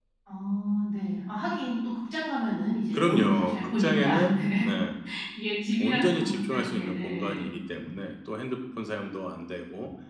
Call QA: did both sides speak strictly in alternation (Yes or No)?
No